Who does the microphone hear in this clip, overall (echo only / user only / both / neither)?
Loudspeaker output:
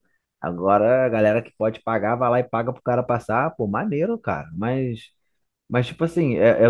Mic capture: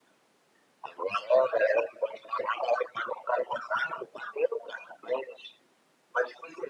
echo only